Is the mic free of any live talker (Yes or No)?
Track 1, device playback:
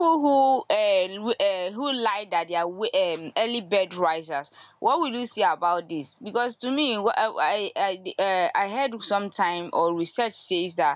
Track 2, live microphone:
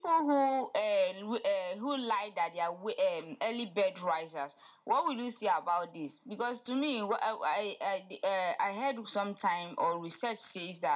Yes